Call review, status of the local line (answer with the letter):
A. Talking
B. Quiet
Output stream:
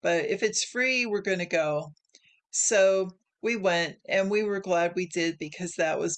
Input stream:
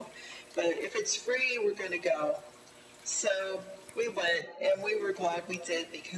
B